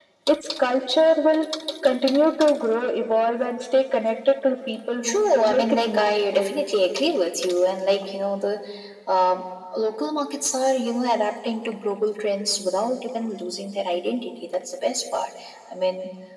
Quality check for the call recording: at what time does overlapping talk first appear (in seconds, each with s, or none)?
5.0 s